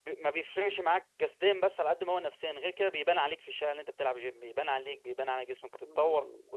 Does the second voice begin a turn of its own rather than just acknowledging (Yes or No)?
Yes